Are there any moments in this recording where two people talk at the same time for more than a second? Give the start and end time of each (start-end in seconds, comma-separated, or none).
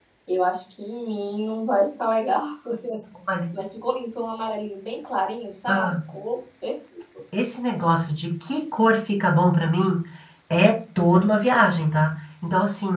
none